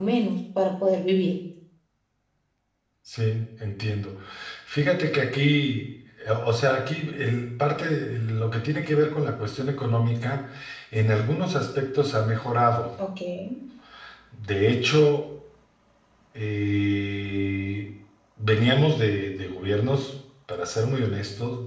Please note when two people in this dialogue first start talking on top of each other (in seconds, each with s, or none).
none